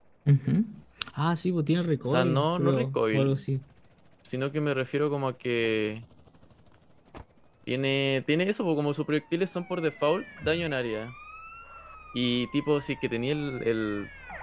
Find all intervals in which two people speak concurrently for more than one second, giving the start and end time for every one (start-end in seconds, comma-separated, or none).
2.0-3.4